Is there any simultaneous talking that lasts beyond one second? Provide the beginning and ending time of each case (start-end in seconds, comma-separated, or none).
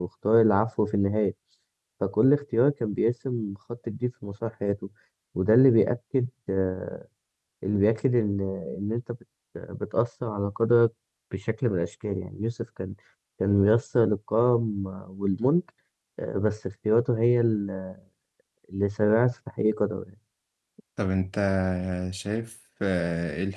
none